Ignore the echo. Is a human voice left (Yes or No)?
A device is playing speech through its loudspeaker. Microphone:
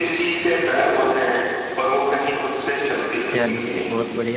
Yes